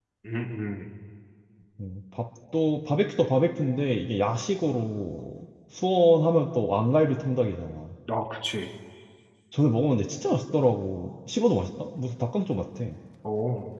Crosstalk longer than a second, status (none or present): none